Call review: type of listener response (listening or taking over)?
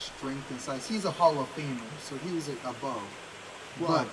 listening